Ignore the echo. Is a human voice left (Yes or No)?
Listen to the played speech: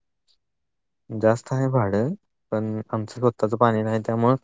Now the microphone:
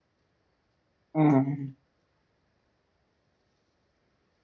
Yes